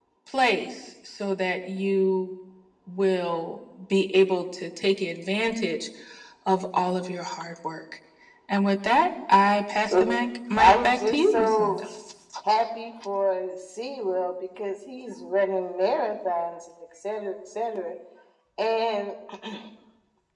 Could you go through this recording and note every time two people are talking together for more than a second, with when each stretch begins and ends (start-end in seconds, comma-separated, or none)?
10.6-11.8